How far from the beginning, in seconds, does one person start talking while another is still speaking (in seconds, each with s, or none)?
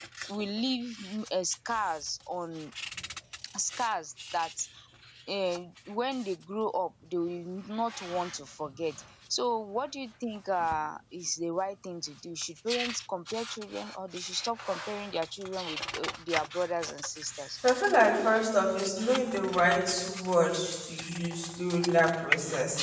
none